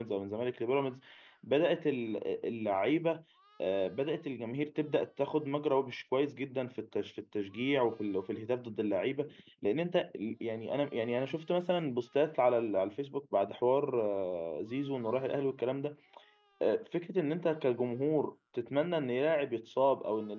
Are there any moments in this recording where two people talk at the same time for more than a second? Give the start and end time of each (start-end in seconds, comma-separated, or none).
none